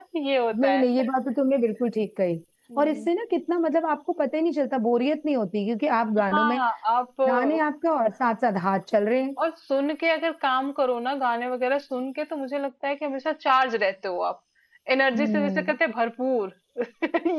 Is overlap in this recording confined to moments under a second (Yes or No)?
Yes